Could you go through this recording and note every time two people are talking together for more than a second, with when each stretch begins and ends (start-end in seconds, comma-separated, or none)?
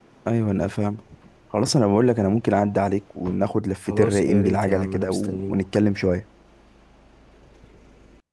3.9-5.6